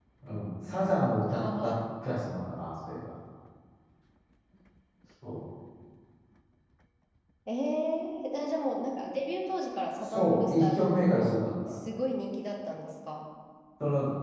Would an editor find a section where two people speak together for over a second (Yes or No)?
Yes